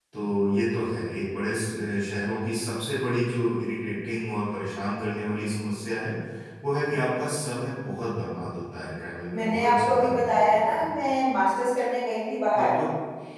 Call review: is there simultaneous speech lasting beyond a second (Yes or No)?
Yes